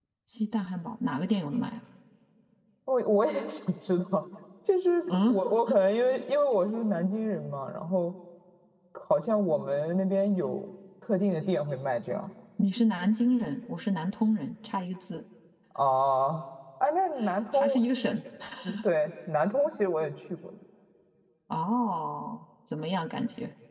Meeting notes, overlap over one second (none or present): none